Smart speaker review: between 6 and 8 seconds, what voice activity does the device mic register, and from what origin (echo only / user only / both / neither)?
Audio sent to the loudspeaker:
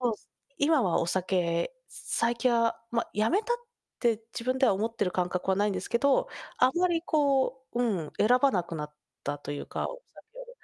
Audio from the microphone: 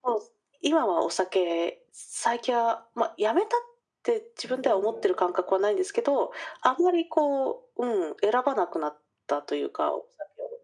echo only